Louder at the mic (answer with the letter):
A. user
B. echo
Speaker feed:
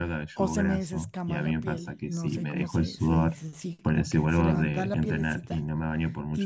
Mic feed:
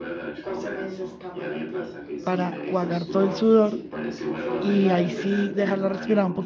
A